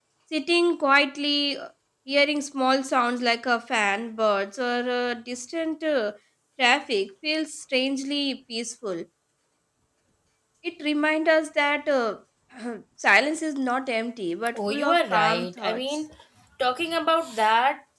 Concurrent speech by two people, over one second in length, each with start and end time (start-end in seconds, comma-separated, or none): 14.6-15.8